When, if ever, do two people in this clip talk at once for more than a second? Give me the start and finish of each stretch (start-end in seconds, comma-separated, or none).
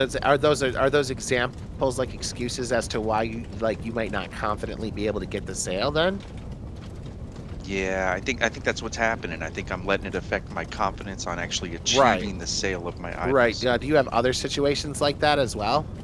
none